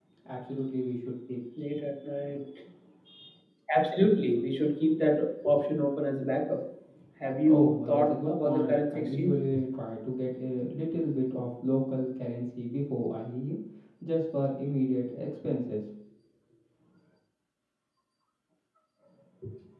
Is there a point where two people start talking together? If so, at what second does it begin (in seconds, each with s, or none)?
7.5 s